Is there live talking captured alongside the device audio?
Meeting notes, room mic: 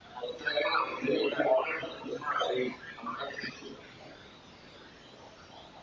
No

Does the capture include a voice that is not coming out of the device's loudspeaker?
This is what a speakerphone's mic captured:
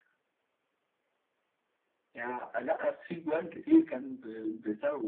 No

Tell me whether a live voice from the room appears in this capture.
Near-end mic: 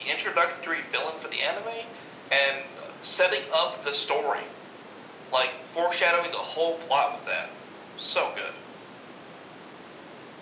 No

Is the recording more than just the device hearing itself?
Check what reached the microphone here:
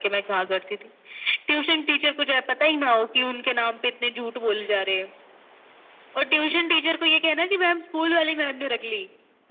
No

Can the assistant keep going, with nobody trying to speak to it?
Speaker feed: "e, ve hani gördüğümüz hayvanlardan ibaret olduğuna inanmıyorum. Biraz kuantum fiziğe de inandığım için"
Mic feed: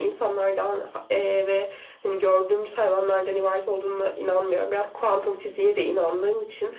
Yes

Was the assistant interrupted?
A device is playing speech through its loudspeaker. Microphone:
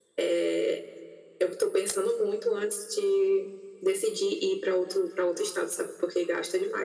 No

